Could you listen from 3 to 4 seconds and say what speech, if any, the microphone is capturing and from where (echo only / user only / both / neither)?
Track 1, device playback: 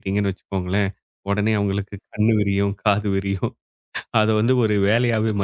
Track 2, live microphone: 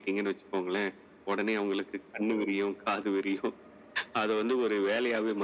echo only